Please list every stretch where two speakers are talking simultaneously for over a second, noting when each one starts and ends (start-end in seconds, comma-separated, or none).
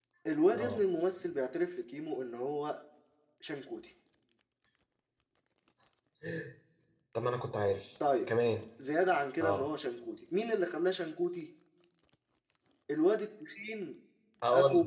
none